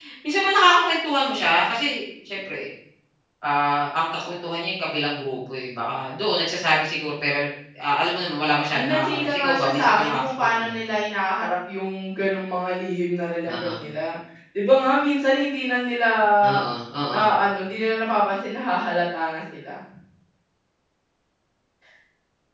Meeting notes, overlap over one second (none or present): present